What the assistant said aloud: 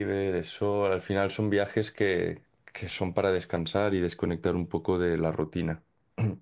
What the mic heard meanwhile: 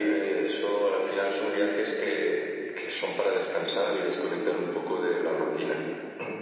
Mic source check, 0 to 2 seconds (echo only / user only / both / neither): echo only